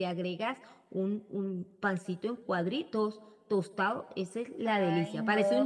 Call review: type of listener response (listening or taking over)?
taking over